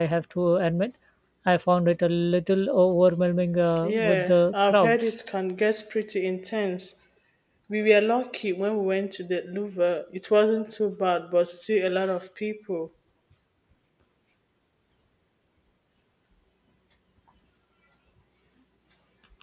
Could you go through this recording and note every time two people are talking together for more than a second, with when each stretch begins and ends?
3.8-5.1

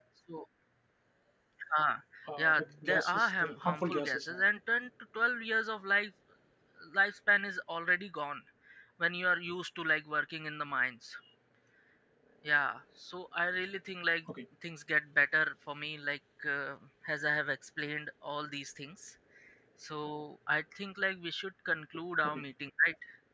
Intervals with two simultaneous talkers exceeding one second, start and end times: 2.4-4.4

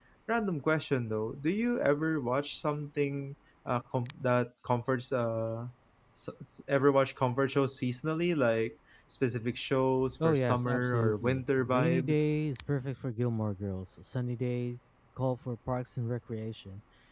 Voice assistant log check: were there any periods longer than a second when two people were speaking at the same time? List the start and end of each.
10.2-12.3

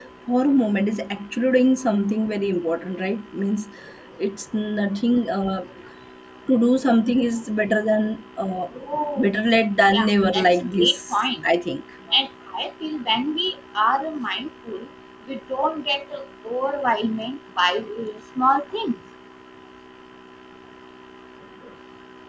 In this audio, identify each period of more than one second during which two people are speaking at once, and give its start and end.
9.9-11.2

